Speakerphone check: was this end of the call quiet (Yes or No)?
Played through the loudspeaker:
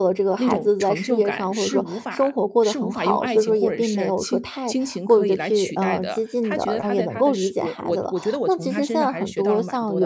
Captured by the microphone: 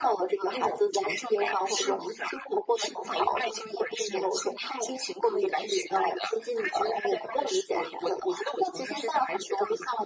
Yes